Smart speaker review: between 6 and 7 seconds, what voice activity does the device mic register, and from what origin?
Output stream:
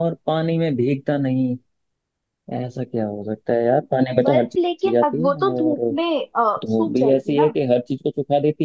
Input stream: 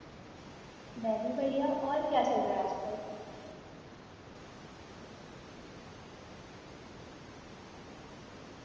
neither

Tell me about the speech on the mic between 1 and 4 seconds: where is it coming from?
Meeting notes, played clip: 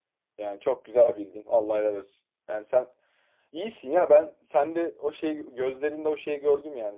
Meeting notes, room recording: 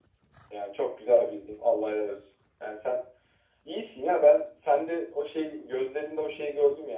echo only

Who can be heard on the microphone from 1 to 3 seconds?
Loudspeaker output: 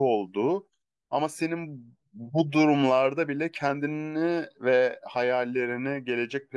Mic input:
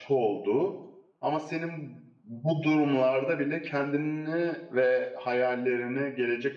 echo only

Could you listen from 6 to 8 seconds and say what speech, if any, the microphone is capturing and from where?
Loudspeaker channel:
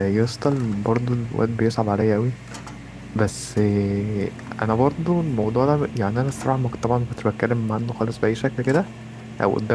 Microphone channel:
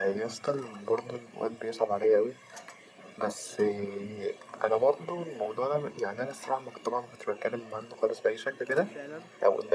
echo only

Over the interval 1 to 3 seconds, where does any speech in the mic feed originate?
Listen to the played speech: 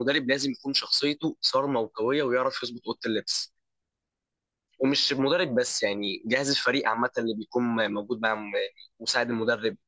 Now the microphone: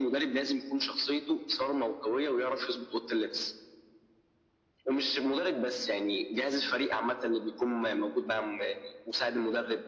echo only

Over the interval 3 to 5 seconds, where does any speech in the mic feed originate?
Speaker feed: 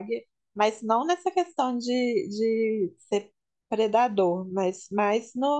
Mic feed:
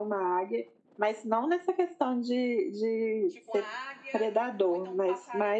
both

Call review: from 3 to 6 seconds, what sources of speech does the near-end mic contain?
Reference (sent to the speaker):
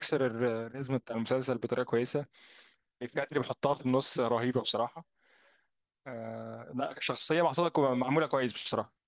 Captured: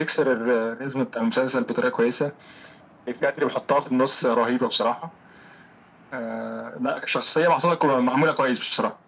echo only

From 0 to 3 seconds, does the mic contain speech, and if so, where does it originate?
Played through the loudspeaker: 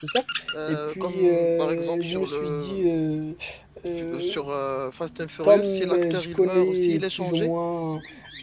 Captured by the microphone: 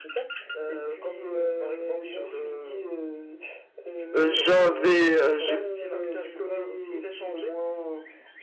echo only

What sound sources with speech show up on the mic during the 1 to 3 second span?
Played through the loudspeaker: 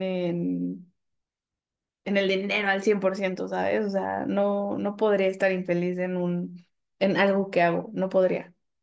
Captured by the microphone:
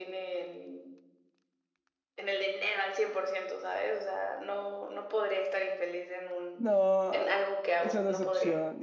echo only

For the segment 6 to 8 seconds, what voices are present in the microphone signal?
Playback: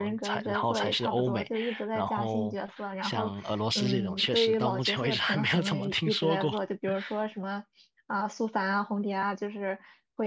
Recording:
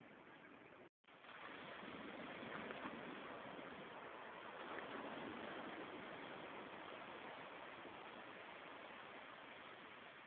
neither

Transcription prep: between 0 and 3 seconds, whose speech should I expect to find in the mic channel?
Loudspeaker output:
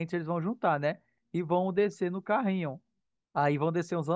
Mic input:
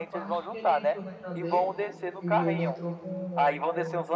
both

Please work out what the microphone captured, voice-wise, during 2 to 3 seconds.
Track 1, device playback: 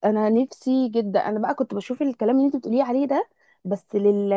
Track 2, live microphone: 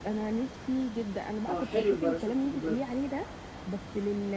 both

